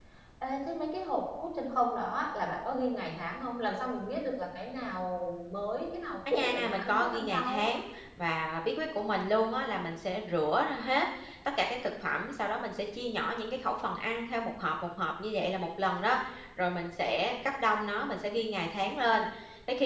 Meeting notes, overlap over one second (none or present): present